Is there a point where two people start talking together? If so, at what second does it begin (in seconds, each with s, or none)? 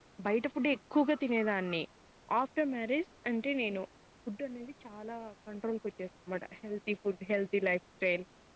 none